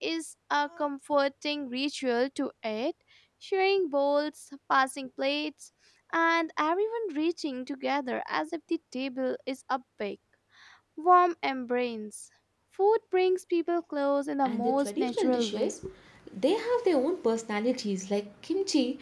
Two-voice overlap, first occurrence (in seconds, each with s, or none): 14.4 s